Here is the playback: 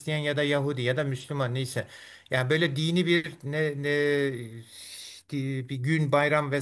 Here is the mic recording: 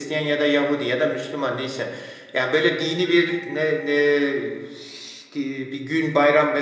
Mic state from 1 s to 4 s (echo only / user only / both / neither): echo only